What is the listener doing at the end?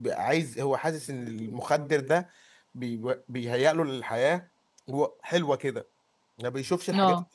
listening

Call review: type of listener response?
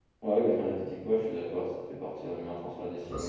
taking over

